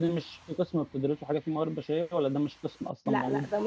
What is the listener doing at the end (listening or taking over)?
taking over